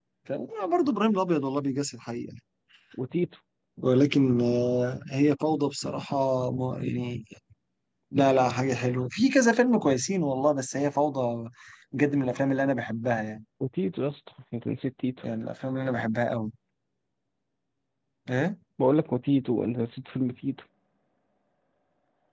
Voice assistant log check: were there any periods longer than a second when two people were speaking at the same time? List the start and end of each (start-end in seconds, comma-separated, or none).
none